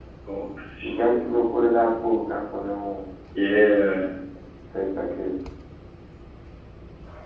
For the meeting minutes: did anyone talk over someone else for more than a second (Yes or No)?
No